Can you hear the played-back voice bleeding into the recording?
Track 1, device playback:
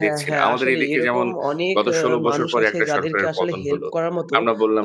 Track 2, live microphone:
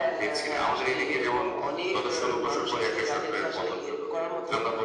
Yes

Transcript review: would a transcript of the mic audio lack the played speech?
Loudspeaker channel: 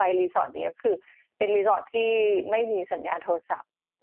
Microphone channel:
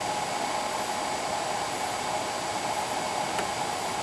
Yes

